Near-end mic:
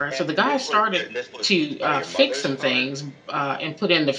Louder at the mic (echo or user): user